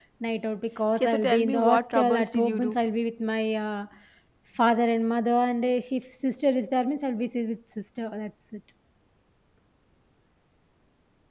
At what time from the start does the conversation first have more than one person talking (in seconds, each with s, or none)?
1.0 s